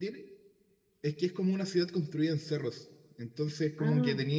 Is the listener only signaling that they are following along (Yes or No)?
Yes